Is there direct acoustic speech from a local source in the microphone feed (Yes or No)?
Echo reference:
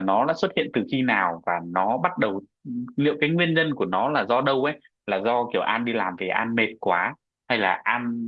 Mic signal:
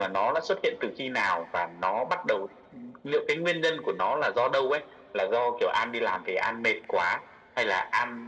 No